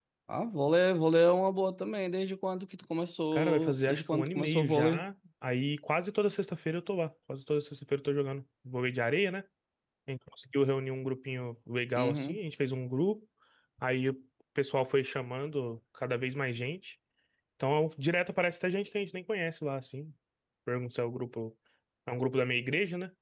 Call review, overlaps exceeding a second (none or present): present